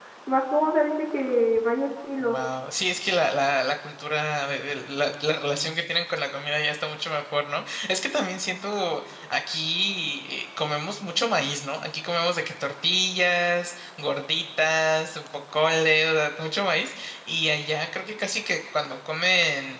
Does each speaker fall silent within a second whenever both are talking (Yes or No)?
Yes